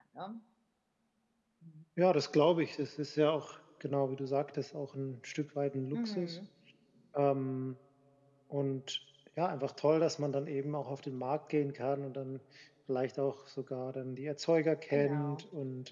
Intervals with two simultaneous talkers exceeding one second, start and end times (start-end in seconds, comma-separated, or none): none